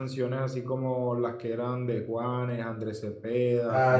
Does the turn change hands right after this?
Yes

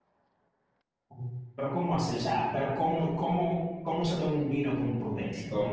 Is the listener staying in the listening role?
No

